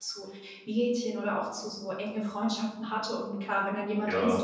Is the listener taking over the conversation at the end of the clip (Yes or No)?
No